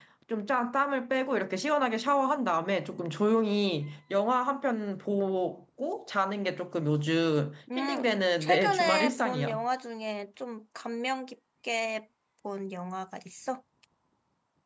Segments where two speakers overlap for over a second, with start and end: 8.4-9.6

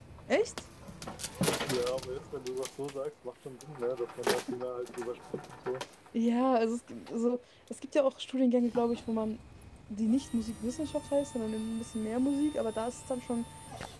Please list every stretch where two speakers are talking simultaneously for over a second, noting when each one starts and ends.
none

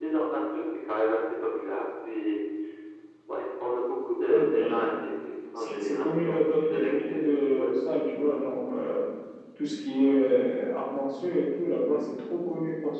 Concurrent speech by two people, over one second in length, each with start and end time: 5.6-7.7

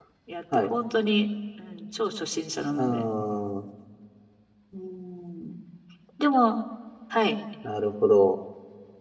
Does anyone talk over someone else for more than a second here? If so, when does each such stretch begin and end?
none

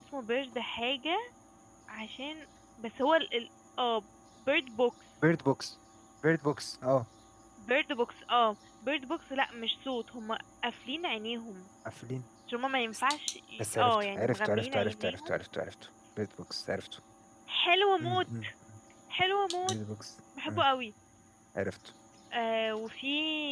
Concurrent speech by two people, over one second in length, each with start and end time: 13.6-15.4

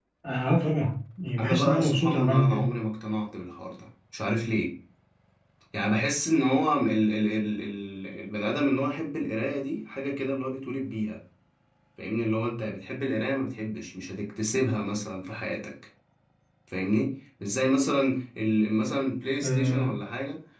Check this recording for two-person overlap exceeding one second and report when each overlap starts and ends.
1.4-2.7

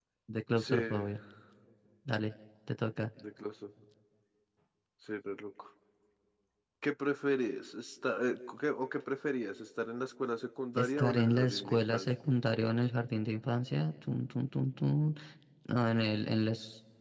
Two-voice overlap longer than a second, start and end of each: 10.8-12.1

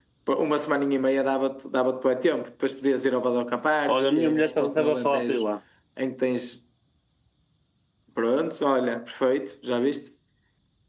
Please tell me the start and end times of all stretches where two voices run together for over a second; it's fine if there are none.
3.9-5.5

